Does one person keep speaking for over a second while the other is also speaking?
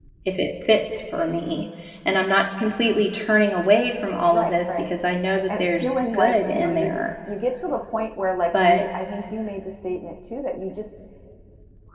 Yes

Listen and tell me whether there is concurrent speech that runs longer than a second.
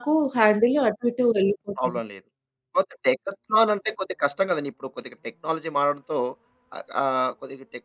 No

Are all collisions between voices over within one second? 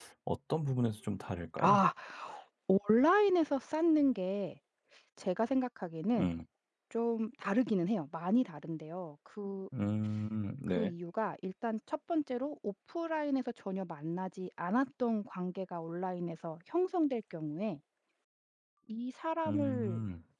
Yes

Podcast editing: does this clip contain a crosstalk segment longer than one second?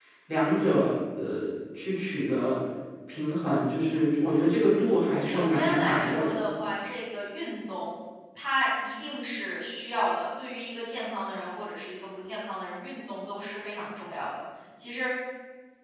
Yes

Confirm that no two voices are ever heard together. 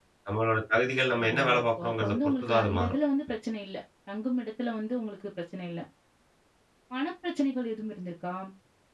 No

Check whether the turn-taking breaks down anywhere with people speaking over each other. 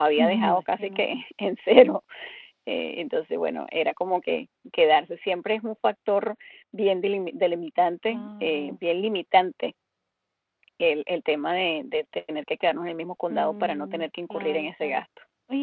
Yes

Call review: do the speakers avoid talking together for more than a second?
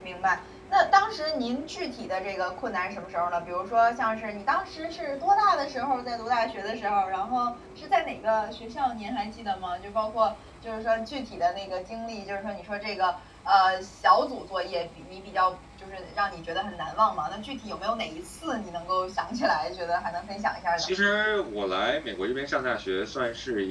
Yes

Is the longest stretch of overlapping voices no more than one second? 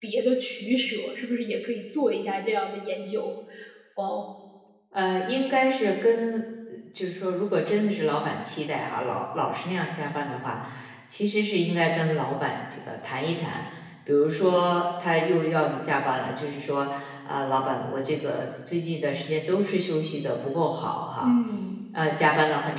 Yes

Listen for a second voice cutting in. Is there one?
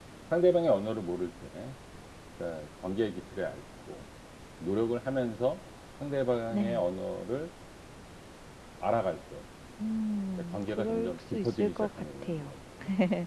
Yes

